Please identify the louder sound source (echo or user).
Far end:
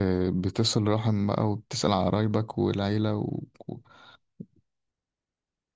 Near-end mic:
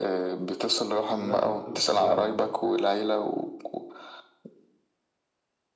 echo